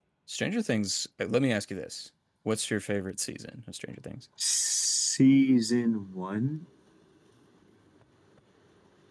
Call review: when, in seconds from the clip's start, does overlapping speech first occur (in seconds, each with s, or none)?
none